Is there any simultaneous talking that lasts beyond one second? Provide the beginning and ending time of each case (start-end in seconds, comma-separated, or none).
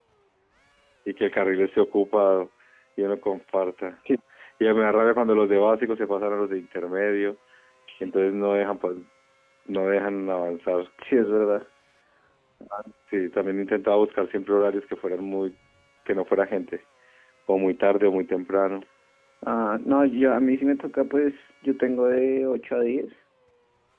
none